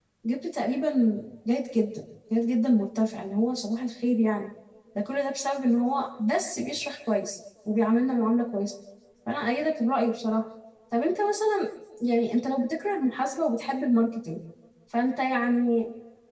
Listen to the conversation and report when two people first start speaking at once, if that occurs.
none

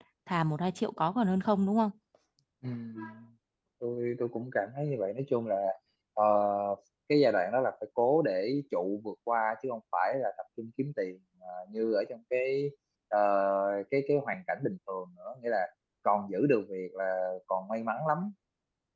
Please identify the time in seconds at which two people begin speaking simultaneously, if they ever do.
none

